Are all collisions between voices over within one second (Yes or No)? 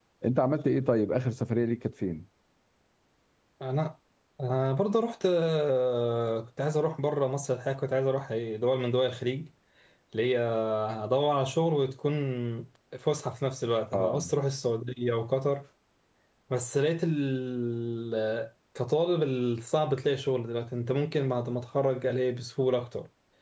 Yes